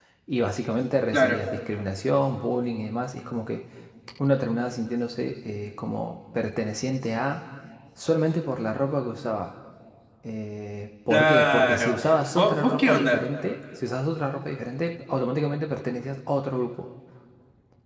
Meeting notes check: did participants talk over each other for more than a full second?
Yes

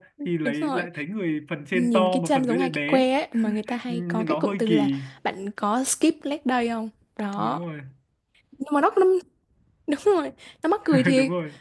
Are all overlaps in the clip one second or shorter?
No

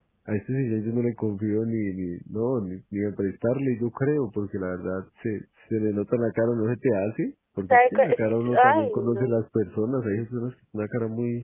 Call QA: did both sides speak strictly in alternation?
No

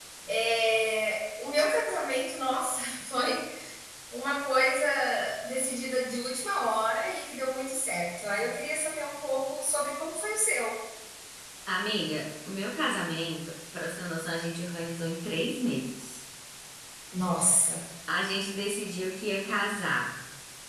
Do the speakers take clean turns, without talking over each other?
Yes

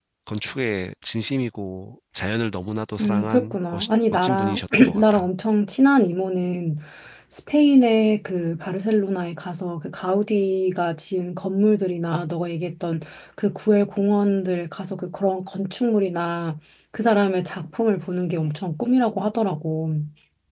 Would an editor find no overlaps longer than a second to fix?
No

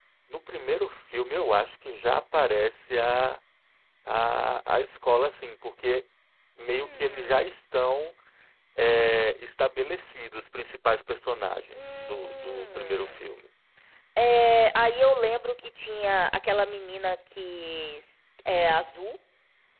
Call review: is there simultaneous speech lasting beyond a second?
Yes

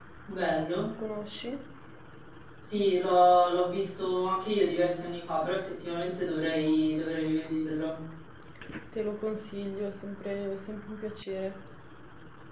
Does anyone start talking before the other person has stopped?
No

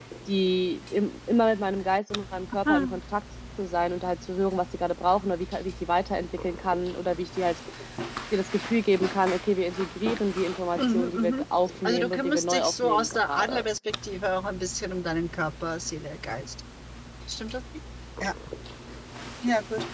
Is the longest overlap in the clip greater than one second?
Yes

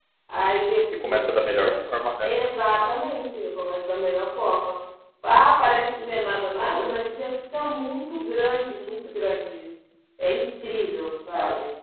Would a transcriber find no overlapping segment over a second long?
Yes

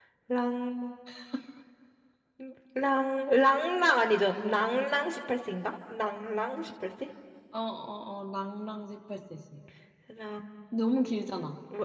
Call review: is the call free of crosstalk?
Yes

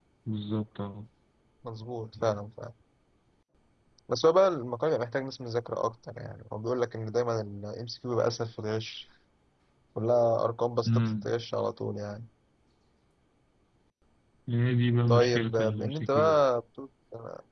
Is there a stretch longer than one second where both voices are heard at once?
Yes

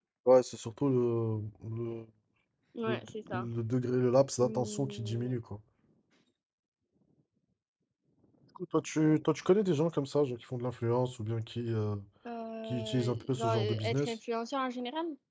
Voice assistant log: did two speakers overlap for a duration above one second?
Yes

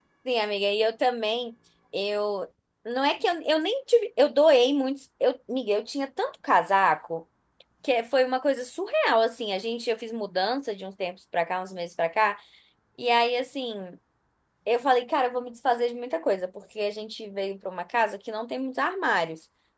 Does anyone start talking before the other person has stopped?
No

